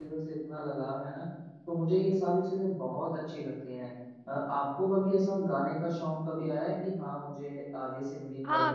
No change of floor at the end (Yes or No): No